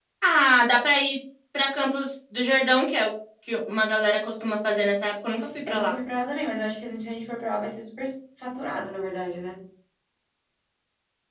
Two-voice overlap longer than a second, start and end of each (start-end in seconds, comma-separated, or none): none